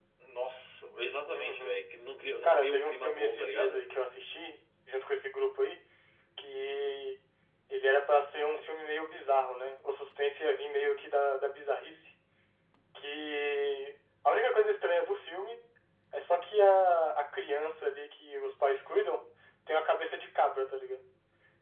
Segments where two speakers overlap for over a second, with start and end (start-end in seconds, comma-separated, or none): 2.4-3.8